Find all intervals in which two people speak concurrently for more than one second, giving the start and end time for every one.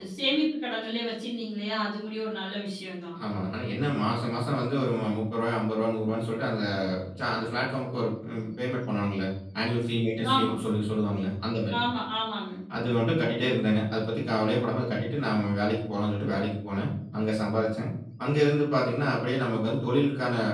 none

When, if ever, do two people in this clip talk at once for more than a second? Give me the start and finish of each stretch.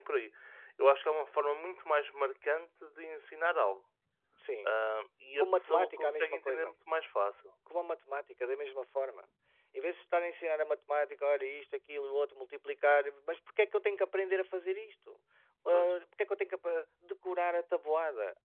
5.4-6.7

